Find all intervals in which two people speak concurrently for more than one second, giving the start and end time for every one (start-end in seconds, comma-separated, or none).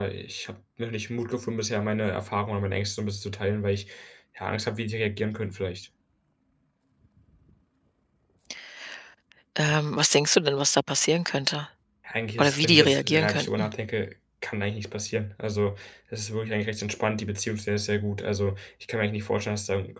12.4-13.7